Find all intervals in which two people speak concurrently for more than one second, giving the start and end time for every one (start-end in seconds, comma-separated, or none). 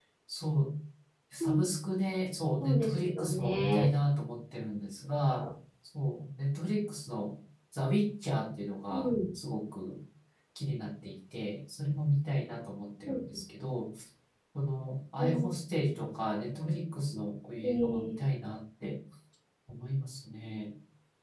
2.6-3.9